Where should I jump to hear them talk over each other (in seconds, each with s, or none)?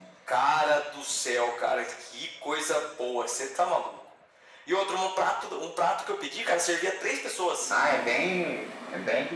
none